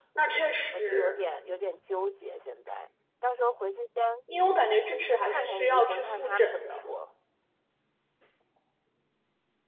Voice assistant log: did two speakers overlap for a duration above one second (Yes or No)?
Yes